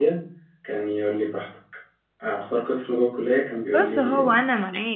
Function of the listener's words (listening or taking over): taking over